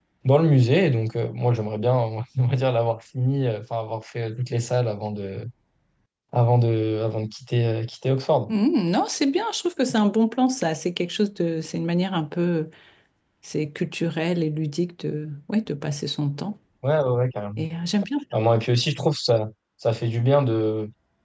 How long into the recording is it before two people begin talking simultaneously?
none

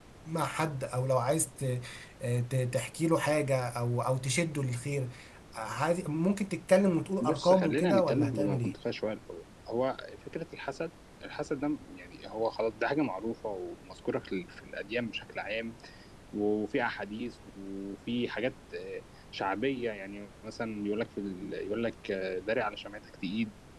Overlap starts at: 7.2 s

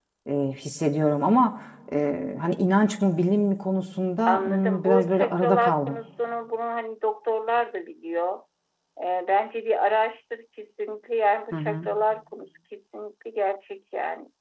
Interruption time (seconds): 4.3 s

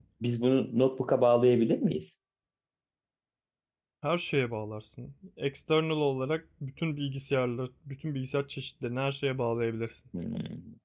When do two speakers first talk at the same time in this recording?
none

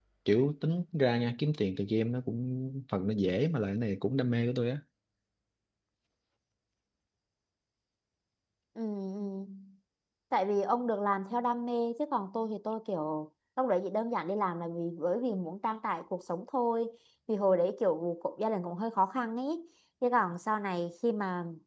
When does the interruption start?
none

